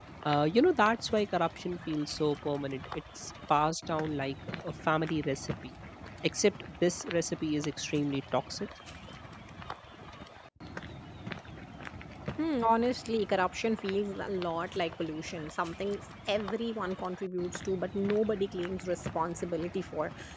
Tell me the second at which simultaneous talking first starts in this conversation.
none

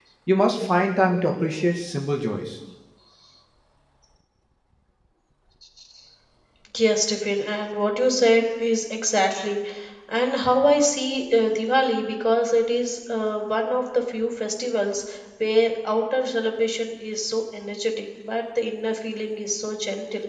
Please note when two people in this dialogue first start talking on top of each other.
none

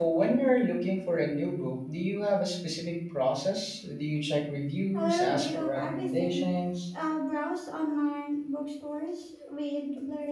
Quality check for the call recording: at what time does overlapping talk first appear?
4.9 s

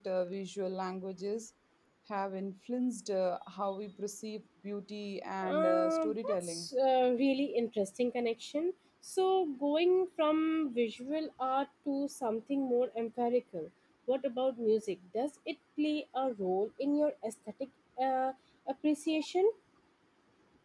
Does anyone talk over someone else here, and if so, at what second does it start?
5.4 s

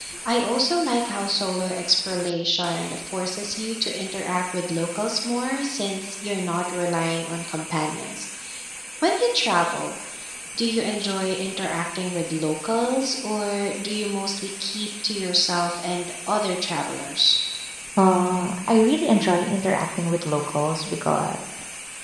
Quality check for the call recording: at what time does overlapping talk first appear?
none

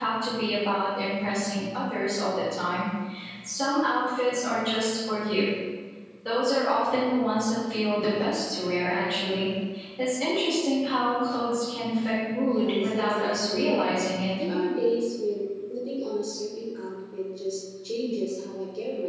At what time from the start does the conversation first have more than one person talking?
12.4 s

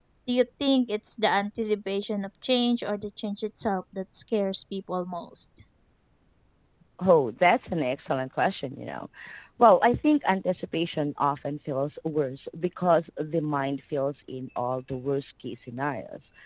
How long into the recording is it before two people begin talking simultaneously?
none

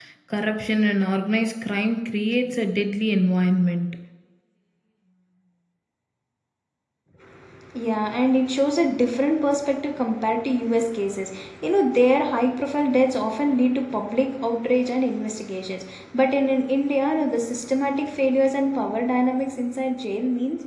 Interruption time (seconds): none

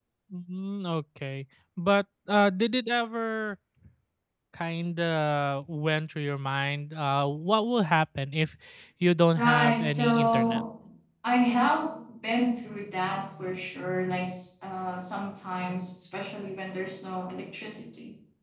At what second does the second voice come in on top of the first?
9.4 s

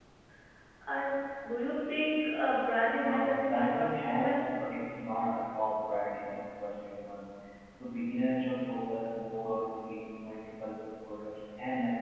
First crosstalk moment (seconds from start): 3.0 s

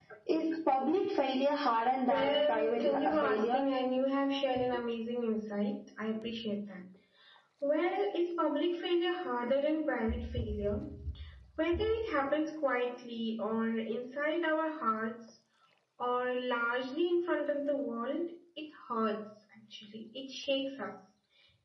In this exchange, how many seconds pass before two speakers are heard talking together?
2.1 s

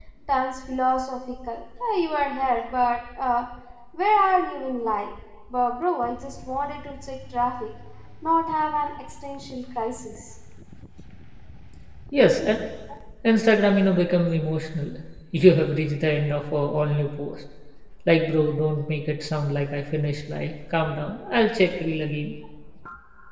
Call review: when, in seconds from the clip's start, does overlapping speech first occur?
none

